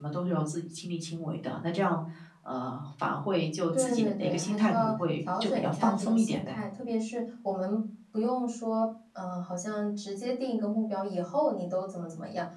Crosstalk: present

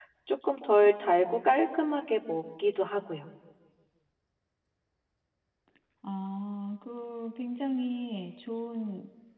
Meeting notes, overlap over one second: none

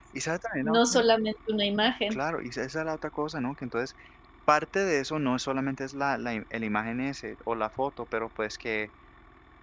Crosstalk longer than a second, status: none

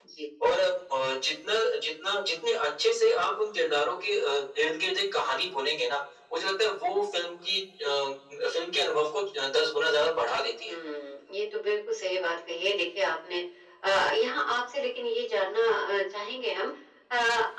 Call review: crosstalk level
none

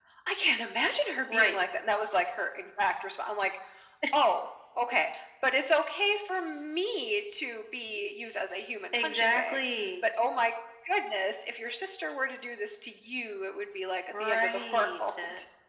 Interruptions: present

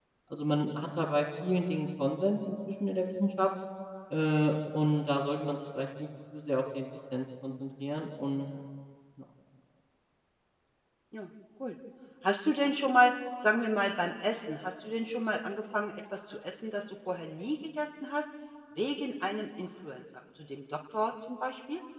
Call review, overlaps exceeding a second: none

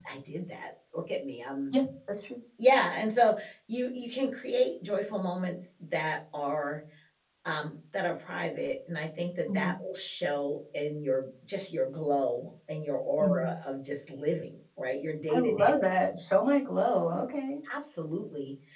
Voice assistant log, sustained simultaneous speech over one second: none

